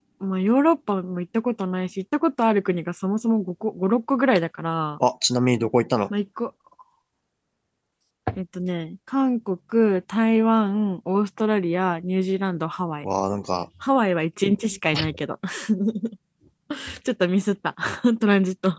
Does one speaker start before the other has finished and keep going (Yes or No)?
No